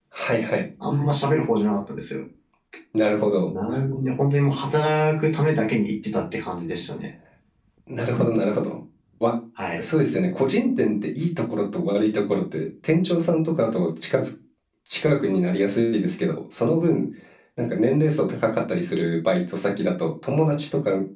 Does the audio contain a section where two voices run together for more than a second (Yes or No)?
No